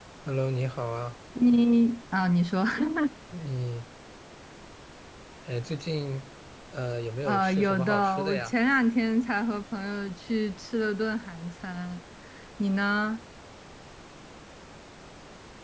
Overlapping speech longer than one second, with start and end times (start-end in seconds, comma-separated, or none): 7.2-8.5